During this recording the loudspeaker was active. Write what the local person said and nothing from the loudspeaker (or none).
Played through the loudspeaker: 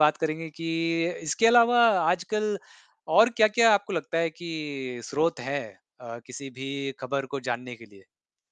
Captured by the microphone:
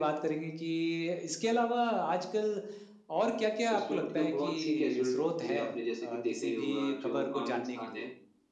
उसमें मतलब बहुत-सी कैज़ुअल्टी थीं आपने जैसे कि देखा ही होगा, जो आम इंसान है,